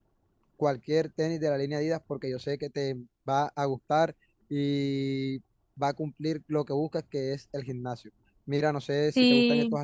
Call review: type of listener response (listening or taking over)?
listening